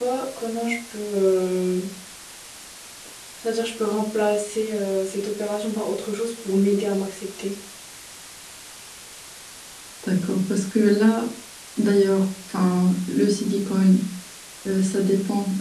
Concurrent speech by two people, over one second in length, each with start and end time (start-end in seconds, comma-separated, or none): none